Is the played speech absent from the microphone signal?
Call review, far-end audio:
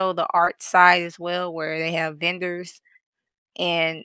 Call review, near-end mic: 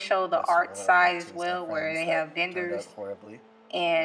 No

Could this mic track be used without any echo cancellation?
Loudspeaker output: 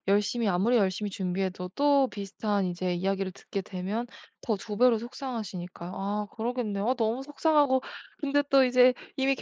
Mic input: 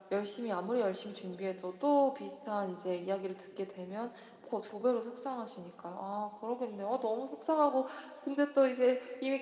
No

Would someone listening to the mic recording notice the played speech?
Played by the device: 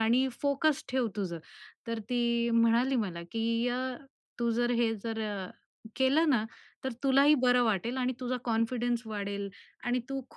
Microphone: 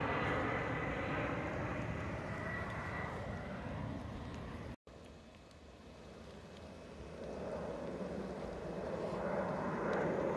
No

